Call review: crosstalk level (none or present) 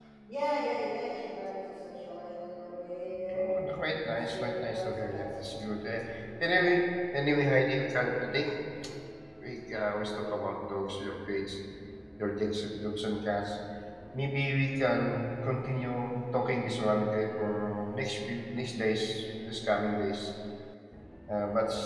present